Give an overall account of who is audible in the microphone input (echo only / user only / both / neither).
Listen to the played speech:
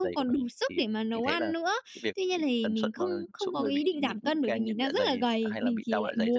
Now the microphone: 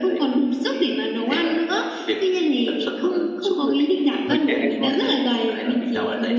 both